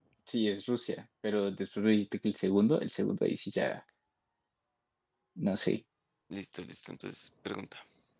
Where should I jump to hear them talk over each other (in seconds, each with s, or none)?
none